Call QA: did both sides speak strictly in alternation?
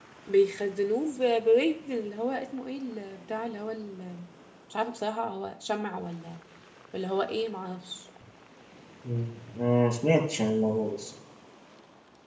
Yes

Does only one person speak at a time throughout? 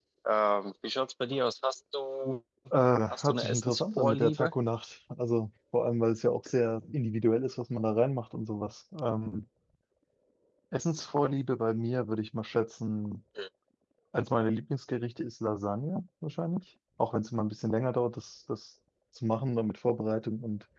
No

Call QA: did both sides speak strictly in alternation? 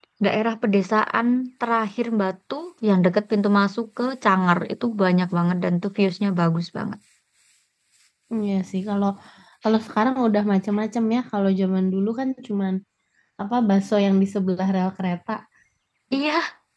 Yes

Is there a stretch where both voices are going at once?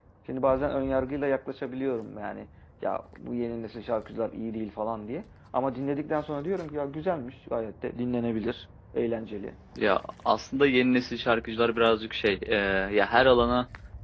No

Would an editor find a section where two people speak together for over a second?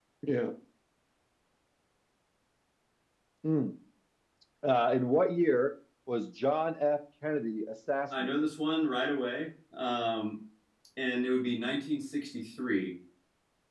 No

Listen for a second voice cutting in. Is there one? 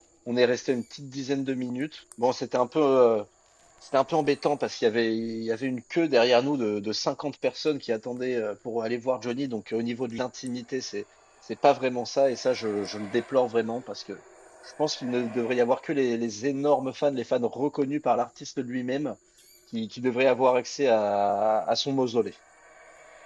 No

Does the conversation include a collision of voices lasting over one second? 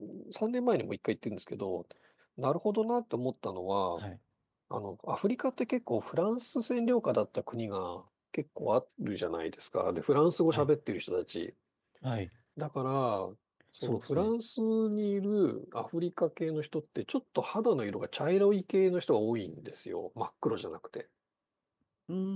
No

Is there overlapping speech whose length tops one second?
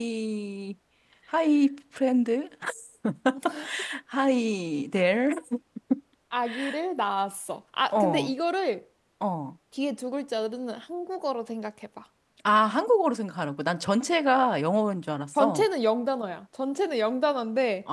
No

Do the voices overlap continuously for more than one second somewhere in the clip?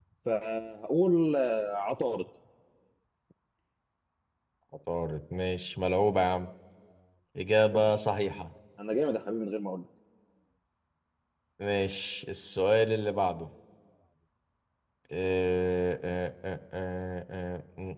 No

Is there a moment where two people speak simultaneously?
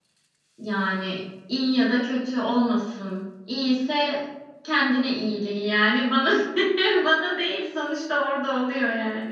No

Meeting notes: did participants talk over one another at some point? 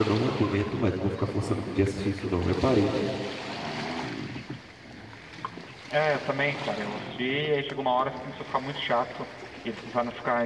No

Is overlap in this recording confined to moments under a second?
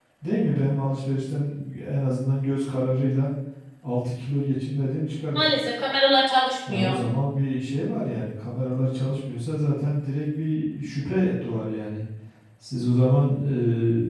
Yes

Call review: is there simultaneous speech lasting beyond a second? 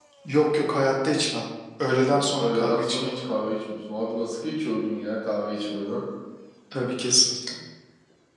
Yes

